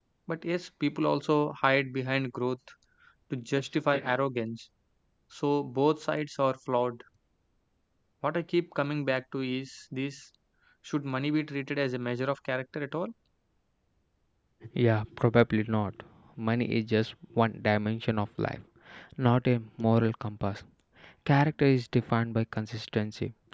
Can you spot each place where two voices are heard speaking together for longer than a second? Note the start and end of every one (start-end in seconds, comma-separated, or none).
none